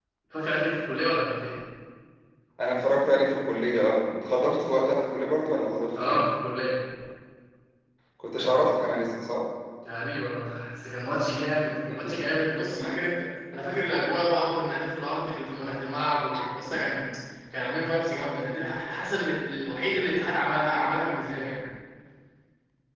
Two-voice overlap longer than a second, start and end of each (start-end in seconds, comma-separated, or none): none